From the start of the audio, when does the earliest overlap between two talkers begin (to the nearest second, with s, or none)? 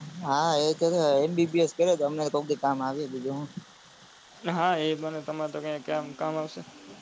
none